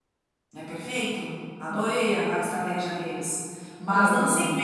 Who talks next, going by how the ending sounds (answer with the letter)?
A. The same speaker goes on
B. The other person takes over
A